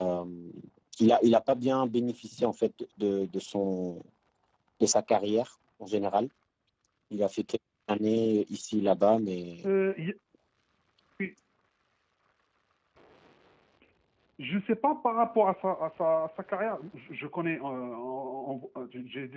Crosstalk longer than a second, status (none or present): none